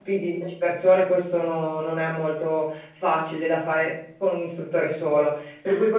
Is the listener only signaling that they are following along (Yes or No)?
Yes